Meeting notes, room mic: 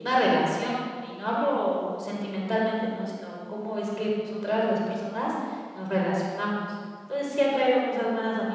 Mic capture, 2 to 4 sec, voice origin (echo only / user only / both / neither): echo only